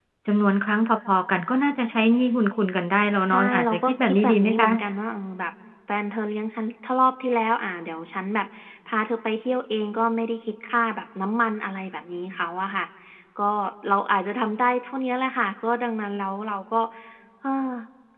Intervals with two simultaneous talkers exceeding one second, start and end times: 3.3-4.7

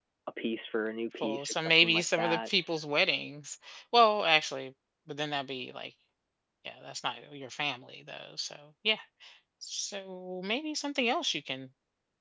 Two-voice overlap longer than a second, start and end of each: 1.2-2.5

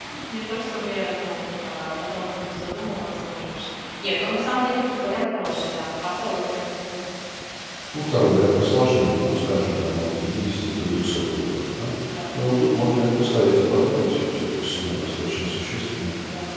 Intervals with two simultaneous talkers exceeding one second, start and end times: none

